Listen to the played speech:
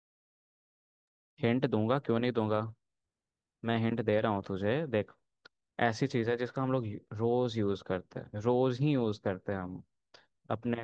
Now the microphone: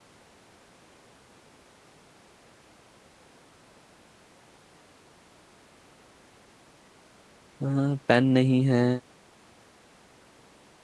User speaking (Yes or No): Yes